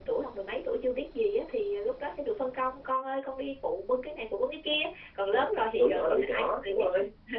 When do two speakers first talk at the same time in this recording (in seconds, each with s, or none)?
5.3 s